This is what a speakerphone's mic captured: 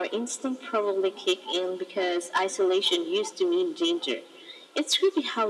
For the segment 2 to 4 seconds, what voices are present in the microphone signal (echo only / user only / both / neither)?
echo only